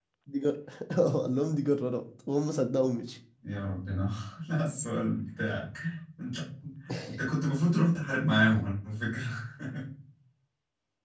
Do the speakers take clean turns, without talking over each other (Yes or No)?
Yes